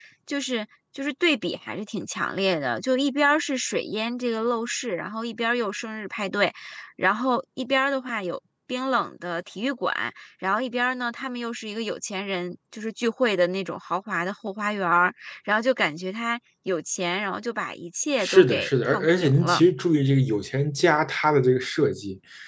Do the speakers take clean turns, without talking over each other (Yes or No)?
No